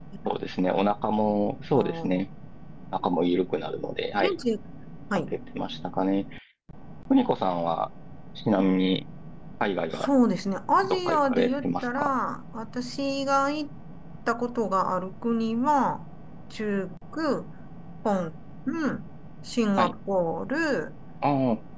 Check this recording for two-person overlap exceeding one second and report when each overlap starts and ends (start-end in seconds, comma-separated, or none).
10.8-12.1